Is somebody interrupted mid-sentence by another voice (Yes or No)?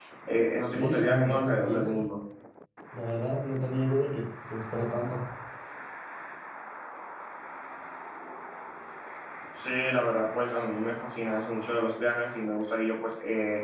Yes